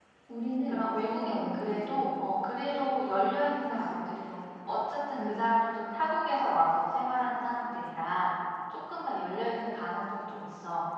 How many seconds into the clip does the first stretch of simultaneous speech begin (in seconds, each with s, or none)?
0.7 s